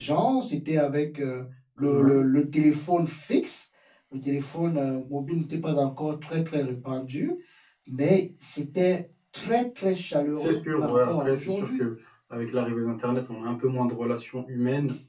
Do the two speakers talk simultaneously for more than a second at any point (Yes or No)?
Yes